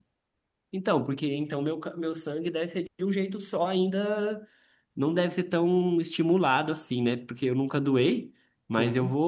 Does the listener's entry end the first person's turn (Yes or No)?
No